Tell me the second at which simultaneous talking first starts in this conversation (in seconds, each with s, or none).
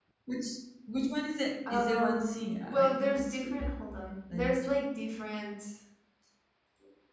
1.7 s